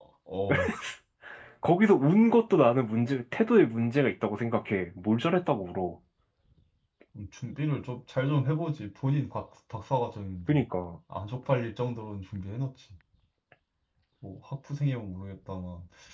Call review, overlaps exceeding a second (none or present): none